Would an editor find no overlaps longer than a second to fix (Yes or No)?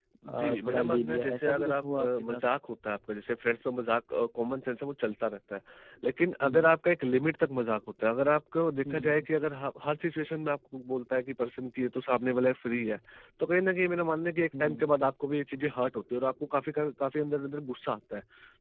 No